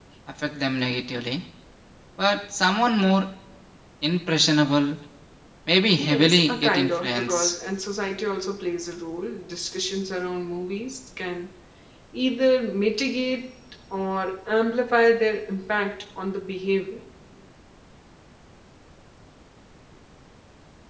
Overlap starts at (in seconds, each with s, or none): 6.0 s